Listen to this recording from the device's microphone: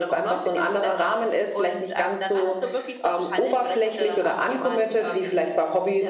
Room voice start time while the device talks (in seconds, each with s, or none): none